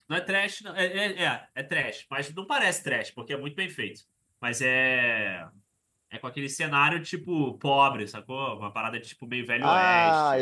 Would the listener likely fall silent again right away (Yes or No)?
No